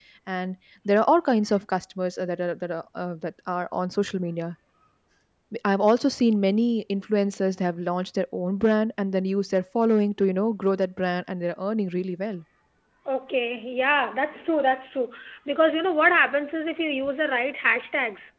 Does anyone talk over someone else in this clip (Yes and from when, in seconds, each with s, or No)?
No